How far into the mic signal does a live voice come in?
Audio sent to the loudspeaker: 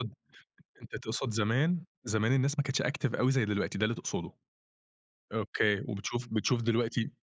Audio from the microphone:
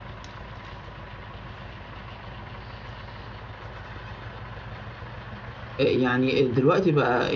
5.8 s

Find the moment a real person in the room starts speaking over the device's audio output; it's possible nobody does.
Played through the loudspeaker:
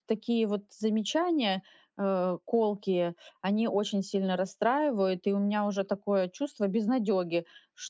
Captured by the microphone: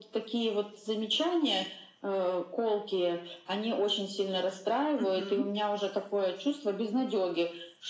5.0 s

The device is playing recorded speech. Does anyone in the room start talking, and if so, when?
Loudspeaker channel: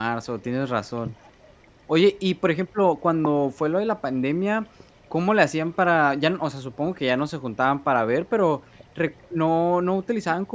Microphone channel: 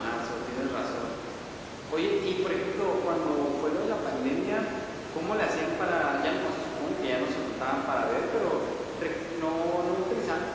none

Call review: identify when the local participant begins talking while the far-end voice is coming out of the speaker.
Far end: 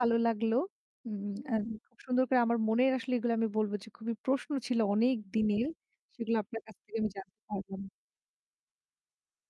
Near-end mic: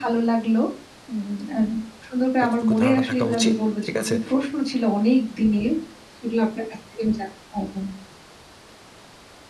2.4 s

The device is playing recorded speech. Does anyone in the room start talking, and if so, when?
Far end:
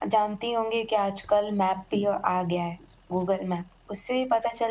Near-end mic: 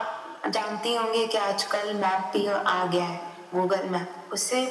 none

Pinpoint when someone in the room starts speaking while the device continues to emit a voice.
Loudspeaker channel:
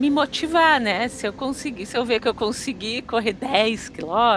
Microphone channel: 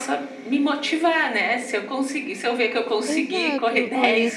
3.1 s

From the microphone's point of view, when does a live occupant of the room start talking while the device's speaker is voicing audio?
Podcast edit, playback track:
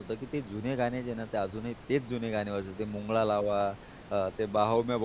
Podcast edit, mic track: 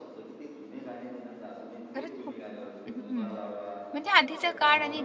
1.9 s

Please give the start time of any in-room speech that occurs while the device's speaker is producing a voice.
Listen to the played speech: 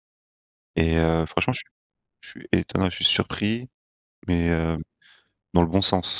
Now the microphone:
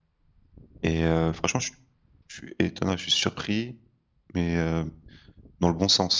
none

